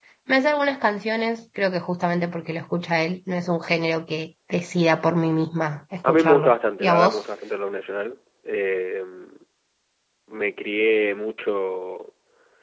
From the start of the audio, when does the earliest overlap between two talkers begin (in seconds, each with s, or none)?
6.0 s